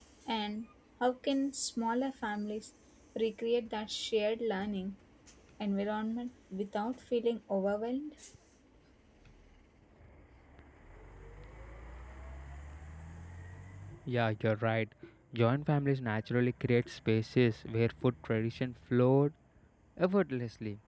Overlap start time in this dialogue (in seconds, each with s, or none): none